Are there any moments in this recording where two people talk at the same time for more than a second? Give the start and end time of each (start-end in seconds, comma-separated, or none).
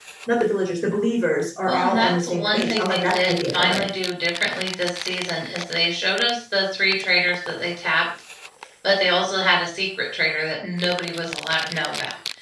1.6-3.9